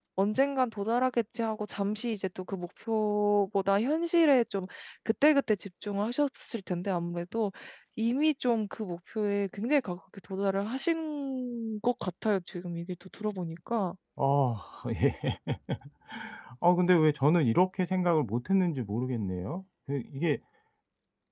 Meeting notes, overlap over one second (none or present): none